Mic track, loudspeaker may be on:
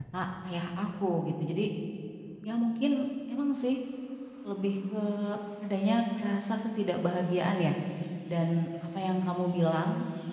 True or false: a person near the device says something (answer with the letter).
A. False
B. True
B